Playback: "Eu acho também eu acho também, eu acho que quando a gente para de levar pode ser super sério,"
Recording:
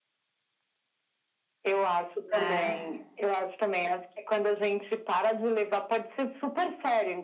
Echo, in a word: present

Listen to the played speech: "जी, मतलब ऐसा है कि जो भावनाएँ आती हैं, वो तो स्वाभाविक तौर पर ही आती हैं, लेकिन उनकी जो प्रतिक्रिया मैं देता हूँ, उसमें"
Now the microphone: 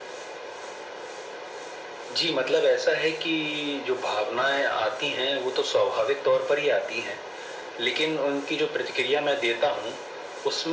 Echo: present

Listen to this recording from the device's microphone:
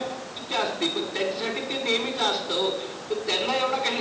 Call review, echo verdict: present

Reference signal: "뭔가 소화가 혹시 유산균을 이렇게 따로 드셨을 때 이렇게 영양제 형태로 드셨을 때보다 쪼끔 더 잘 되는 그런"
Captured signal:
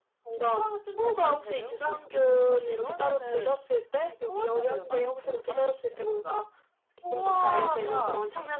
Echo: present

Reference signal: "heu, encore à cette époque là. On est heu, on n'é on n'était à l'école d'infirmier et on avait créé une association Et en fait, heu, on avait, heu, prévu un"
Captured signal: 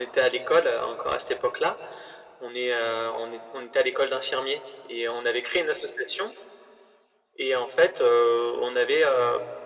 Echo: present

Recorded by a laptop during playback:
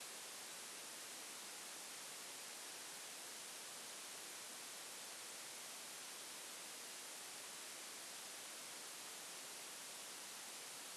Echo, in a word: none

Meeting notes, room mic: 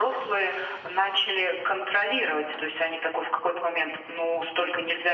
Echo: present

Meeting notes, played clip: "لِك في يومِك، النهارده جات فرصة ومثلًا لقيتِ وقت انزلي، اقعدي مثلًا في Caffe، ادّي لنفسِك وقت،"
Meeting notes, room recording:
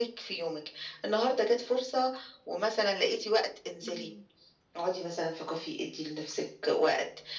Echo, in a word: present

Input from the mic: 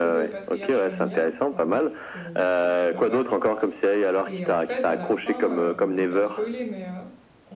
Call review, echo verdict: present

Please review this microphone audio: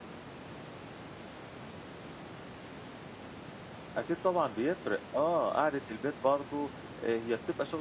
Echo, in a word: none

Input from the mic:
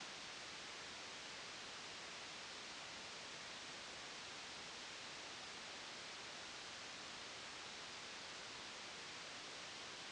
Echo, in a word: none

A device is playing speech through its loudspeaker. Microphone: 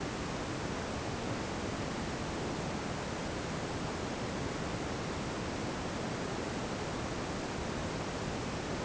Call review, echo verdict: none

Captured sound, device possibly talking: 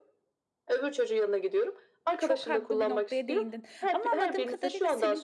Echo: present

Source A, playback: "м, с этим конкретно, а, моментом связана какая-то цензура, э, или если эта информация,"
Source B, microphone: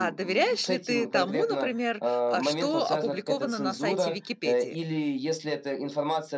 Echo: present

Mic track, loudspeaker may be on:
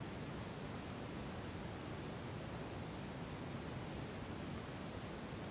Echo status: none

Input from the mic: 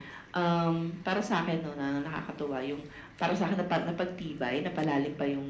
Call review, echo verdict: present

